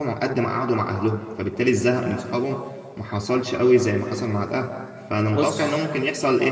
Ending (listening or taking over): listening